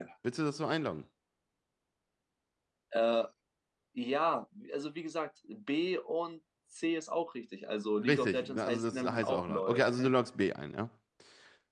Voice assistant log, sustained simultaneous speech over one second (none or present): present